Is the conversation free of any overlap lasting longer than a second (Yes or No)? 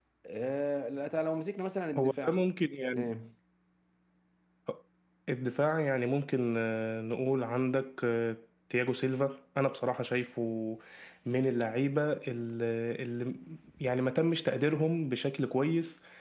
Yes